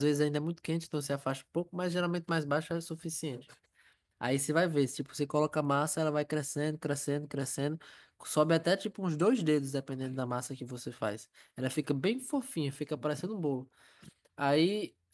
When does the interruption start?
none

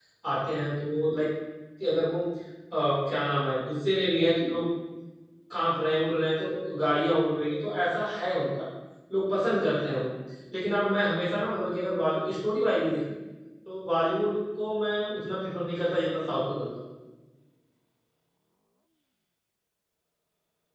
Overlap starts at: none

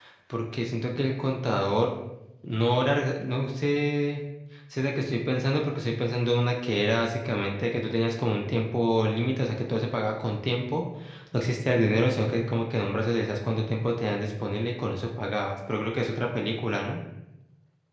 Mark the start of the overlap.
none

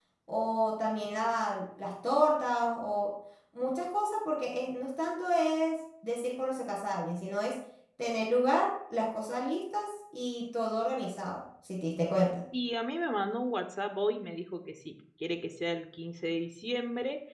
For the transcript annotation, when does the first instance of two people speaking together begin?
none

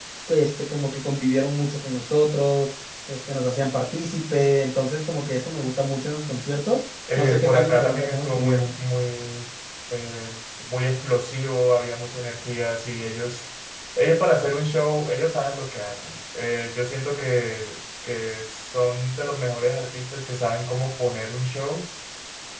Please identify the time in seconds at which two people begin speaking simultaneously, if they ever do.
7.1 s

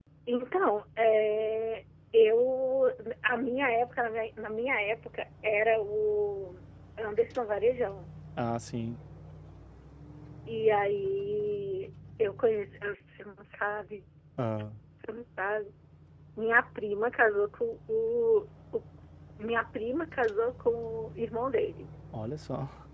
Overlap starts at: none

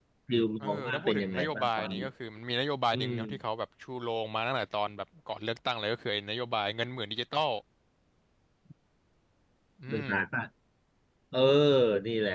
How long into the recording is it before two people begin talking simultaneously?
0.6 s

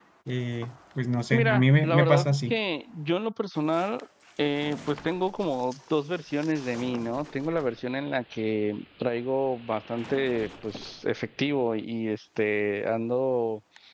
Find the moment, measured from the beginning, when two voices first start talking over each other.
1.3 s

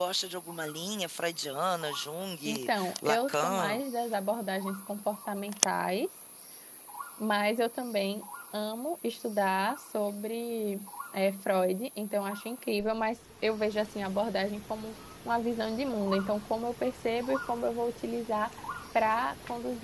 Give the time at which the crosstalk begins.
2.4 s

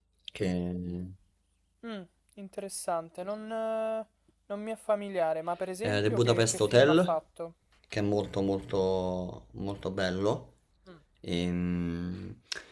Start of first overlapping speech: 5.8 s

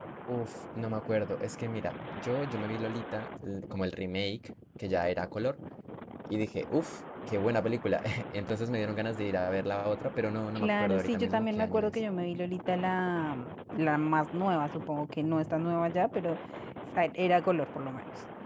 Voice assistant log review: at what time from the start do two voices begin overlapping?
10.6 s

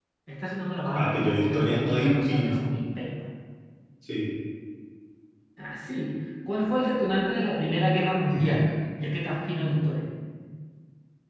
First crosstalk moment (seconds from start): 1.0 s

